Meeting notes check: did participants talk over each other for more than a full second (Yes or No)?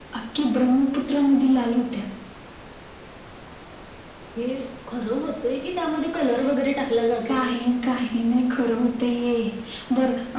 No